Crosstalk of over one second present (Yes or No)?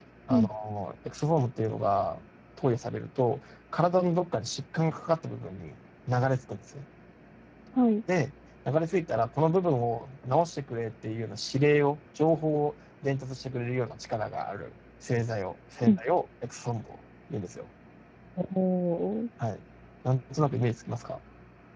No